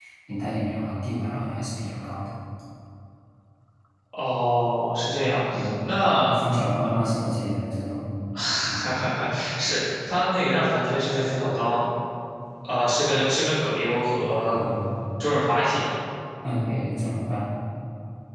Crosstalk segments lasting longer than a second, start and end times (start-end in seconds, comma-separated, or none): none